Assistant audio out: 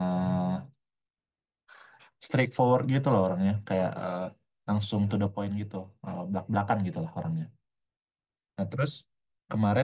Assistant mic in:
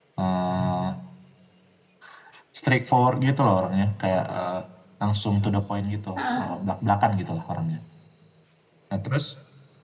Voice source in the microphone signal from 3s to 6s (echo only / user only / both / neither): echo only